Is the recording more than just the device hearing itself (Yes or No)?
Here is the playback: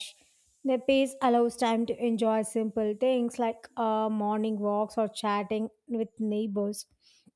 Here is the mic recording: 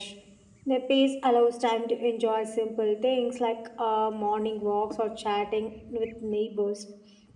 No